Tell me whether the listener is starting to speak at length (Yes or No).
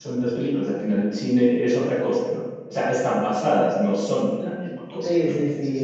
Yes